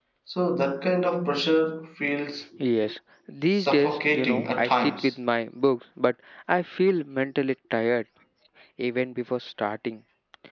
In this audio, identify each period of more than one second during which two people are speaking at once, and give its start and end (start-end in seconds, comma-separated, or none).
3.5-5.1